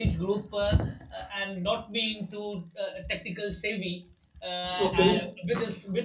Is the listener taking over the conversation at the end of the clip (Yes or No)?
No